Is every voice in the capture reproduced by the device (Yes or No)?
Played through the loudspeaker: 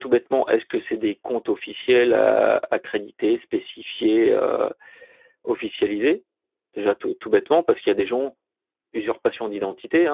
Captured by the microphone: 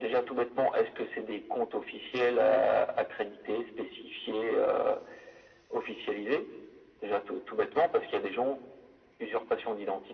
Yes